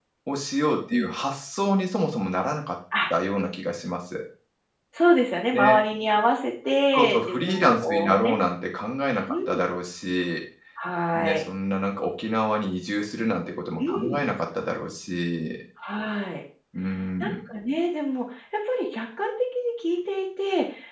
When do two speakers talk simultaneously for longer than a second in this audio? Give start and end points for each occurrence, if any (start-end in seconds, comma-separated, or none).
6.9-8.4